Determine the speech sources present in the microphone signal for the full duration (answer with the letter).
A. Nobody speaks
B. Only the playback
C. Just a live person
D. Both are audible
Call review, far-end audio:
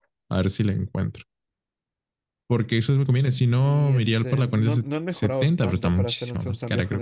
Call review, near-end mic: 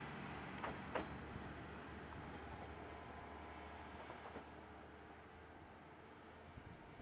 A